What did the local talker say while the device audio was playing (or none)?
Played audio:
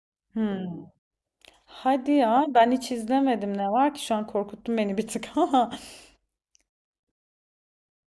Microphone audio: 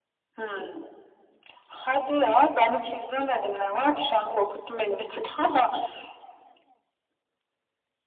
none